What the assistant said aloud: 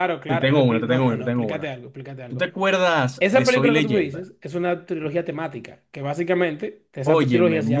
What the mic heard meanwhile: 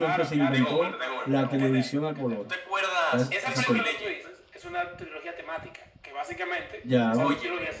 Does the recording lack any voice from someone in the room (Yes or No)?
No